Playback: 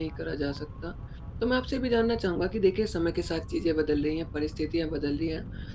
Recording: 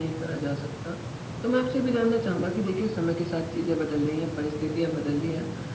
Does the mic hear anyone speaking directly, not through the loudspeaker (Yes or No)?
No